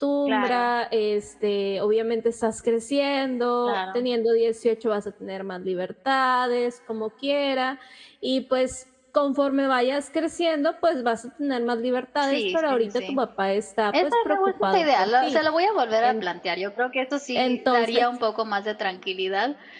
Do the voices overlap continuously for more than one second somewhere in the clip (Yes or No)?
Yes